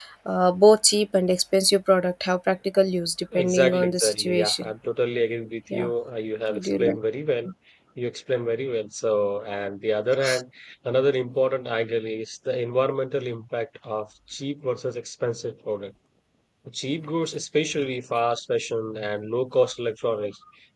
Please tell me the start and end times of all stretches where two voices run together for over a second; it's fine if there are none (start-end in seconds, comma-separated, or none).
3.3-4.7